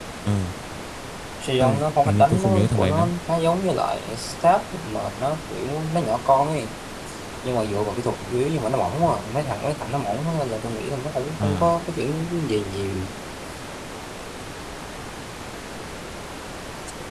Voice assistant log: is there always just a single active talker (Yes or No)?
No